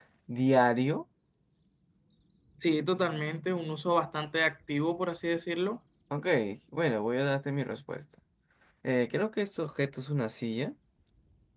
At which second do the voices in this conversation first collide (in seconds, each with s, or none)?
none